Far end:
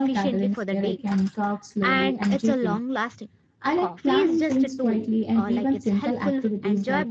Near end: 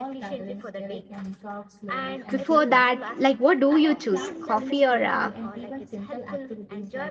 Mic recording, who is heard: both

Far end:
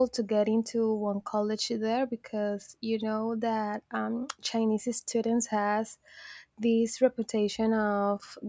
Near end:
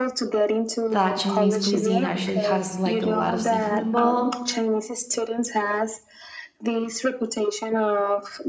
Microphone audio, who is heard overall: both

